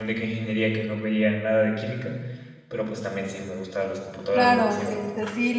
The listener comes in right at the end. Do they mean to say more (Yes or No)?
Yes